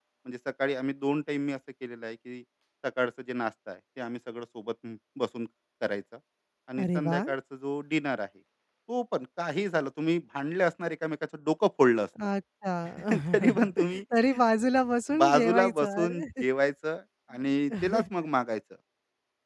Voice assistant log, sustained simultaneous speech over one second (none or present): present